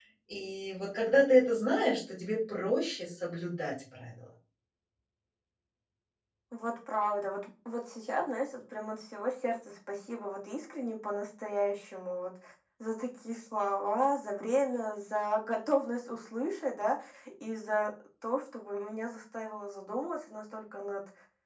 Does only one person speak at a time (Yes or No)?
Yes